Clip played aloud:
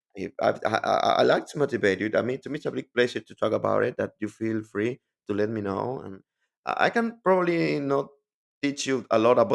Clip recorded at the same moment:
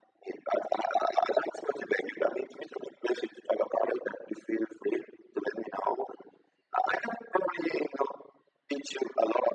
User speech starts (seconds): none

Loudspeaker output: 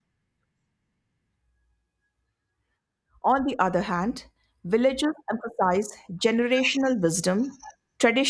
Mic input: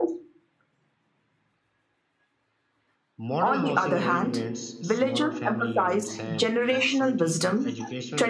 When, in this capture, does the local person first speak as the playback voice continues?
3 s

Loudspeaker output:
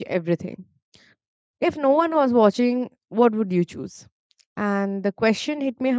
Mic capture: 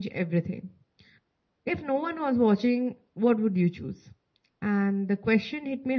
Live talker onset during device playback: none

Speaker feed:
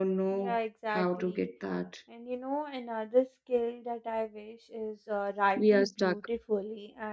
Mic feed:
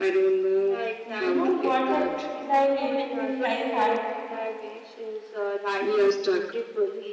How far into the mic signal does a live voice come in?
1 s

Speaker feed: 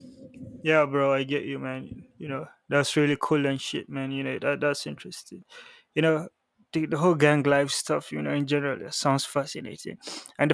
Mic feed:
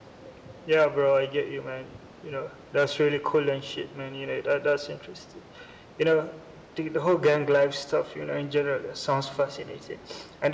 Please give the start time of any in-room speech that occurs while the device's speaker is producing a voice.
none

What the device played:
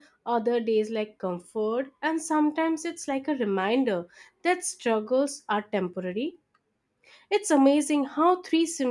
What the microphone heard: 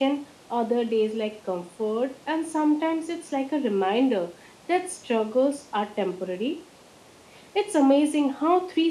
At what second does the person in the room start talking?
none

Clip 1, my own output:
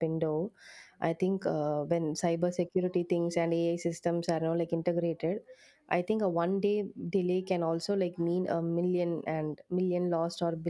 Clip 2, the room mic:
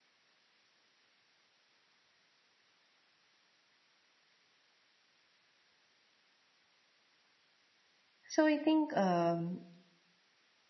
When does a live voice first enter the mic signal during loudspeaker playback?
8 s

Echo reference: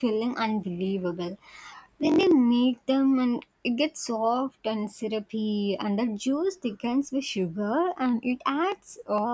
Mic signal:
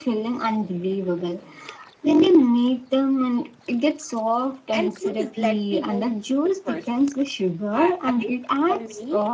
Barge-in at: 5 s

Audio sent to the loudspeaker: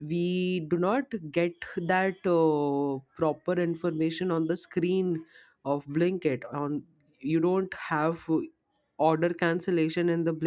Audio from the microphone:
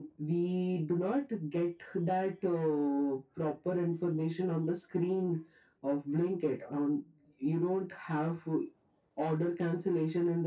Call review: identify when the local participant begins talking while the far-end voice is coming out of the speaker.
none

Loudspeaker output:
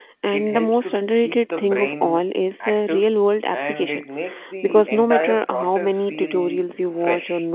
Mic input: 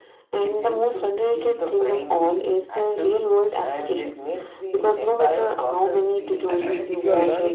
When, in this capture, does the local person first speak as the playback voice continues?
7 s

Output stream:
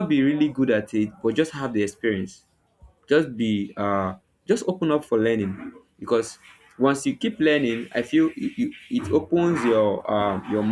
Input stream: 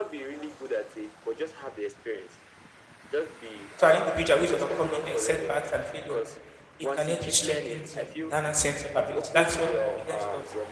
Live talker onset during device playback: 4 s

